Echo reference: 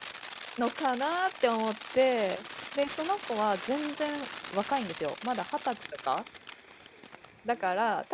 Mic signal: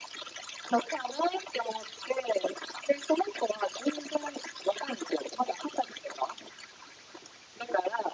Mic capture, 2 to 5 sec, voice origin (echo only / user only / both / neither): echo only